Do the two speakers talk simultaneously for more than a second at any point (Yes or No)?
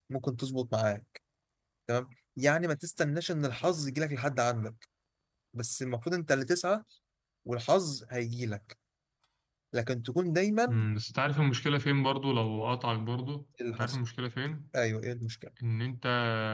No